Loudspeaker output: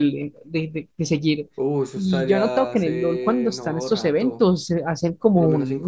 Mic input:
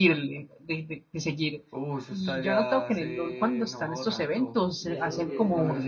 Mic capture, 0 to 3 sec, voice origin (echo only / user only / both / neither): echo only